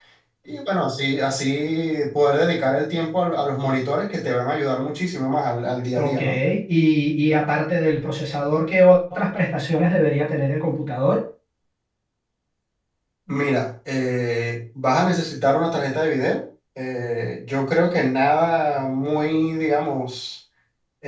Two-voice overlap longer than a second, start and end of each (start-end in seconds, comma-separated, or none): none